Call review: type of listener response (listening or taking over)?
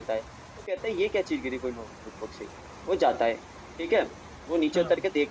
listening